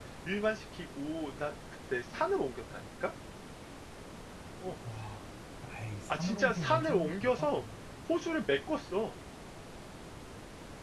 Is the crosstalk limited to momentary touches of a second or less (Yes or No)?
No